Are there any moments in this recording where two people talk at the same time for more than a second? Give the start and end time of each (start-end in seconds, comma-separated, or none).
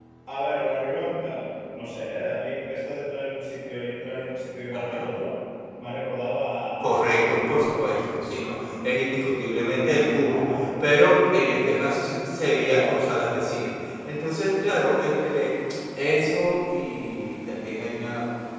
6.8-8.1